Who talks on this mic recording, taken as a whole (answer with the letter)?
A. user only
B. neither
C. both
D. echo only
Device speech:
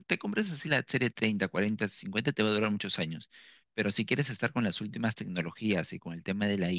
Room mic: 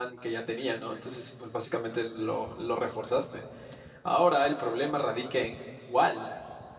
A